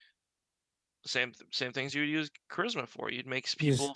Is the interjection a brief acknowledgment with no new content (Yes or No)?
Yes